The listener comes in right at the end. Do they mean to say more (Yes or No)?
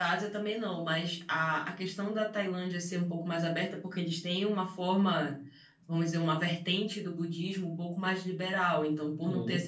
No